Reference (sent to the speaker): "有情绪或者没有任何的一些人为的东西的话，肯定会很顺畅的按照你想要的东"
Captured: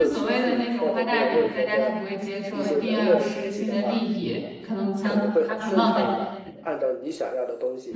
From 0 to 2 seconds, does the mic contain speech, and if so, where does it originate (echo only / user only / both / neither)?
both